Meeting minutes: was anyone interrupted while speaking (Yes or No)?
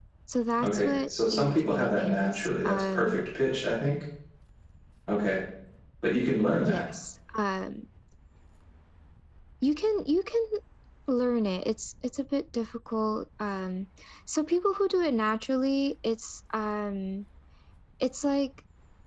Yes